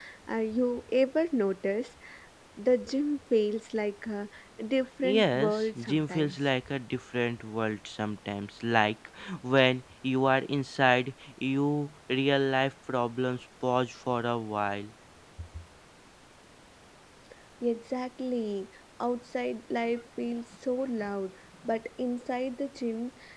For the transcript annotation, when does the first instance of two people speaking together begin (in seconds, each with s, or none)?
5.0 s